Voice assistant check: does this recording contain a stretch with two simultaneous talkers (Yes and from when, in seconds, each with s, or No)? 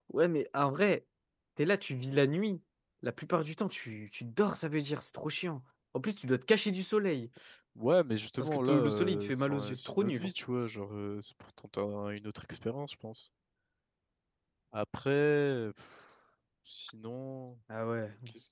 Yes, from 8.4 s